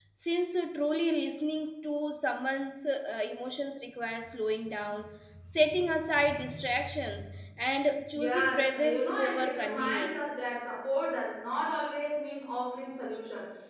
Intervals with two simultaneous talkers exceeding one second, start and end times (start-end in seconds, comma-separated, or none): 8.1-10.3